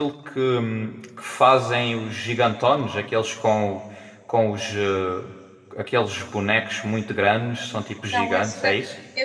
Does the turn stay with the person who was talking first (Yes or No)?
No